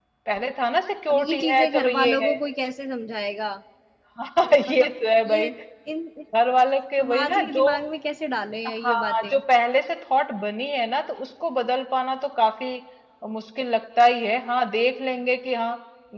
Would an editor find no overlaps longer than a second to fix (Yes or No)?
No